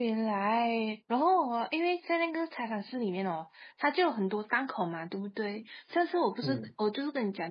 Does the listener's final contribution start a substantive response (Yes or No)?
No